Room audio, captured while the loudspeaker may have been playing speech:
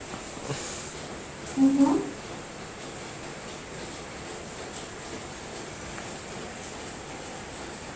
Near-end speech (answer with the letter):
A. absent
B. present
B